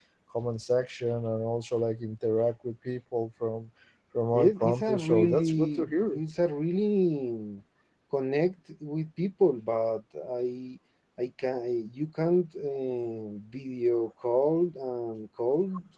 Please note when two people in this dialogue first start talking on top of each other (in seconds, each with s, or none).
4.3 s